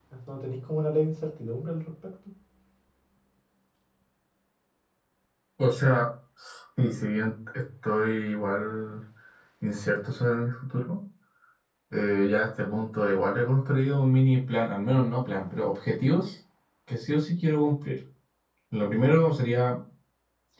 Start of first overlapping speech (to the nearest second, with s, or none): none